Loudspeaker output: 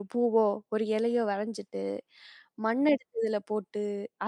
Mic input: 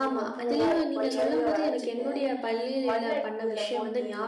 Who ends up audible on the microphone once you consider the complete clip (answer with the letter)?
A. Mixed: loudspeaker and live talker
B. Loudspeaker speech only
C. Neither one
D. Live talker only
A